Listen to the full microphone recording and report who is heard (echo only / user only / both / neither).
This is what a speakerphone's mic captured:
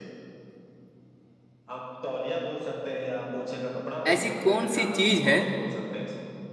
both